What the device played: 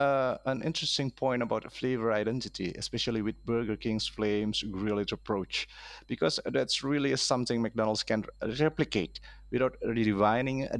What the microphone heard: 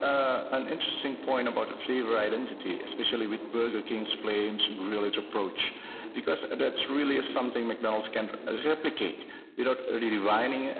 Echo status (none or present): present